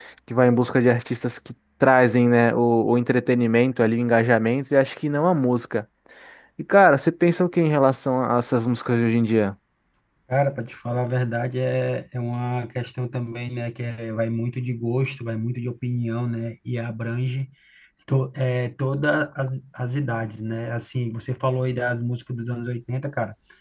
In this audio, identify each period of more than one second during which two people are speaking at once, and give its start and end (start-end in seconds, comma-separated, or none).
none